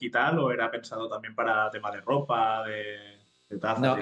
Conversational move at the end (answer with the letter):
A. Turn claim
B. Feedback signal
A